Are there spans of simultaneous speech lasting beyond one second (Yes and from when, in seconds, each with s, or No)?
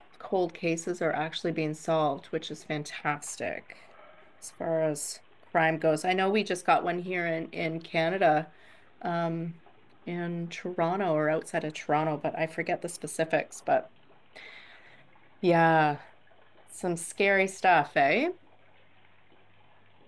No